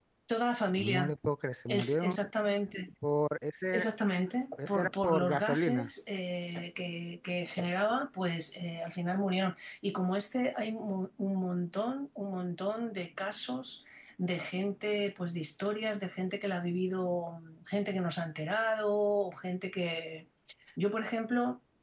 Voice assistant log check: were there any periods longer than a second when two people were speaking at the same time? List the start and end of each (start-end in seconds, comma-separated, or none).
4.6-5.9